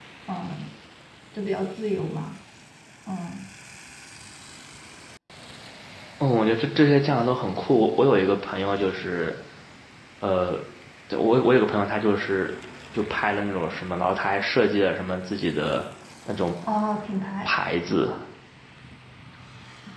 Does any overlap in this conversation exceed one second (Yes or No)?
No